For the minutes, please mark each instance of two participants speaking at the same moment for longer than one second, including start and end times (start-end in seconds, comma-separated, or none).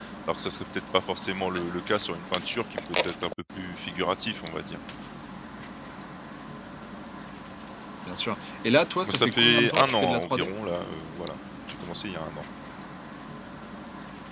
9.0-10.5